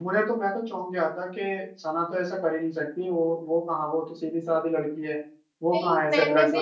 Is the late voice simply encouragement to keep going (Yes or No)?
No